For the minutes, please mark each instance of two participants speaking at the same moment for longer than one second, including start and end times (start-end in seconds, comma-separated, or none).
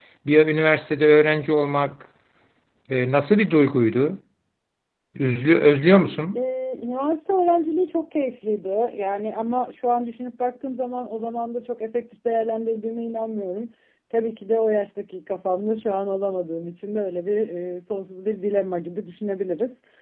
none